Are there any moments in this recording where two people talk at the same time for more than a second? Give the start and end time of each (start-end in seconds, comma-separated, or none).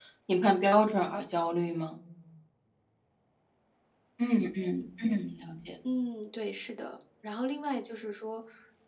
none